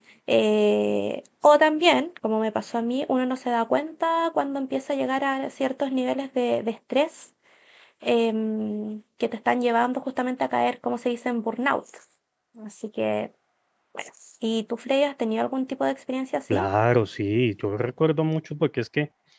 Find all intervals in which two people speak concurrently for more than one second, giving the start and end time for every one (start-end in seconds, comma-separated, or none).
none